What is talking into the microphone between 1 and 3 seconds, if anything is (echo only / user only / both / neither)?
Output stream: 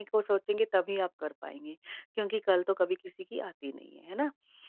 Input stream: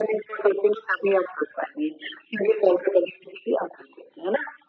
echo only